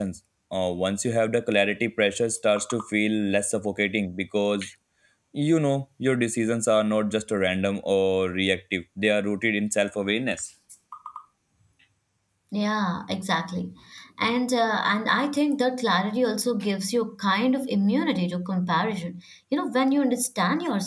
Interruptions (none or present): none